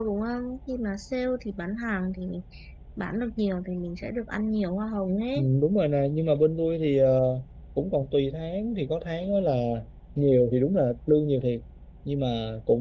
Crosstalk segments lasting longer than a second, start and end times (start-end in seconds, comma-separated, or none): none